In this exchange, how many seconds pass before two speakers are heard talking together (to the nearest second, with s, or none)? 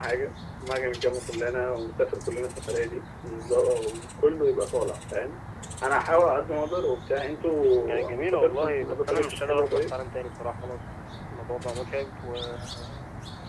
8 s